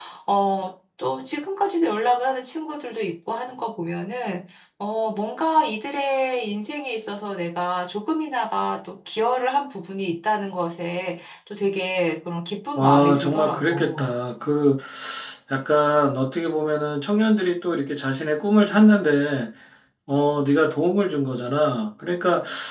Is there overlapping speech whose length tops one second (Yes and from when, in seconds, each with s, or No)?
Yes, from 12.8 s